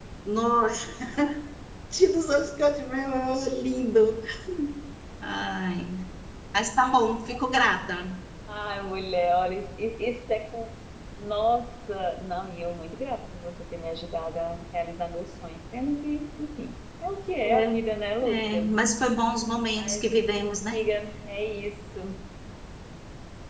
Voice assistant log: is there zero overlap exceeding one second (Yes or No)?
Yes